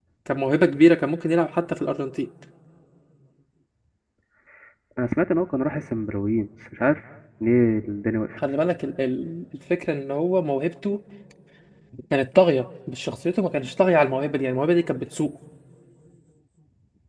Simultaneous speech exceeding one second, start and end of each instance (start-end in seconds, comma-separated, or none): none